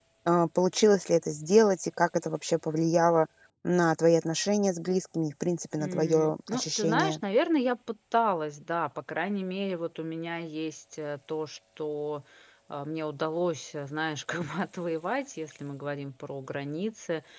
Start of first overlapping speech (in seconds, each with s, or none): 5.8 s